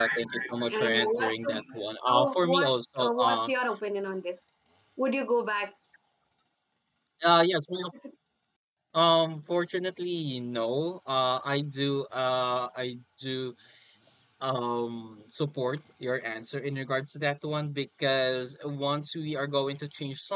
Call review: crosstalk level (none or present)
present